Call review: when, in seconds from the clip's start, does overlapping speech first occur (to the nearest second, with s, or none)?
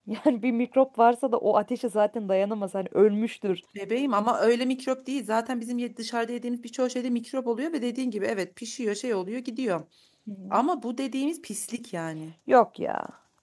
none